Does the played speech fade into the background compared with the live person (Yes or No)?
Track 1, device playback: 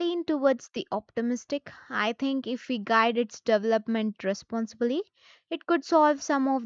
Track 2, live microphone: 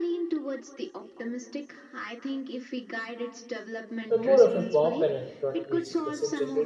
Yes